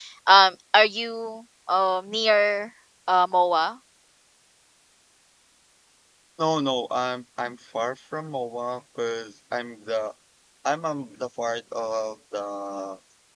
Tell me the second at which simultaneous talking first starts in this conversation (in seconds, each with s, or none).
none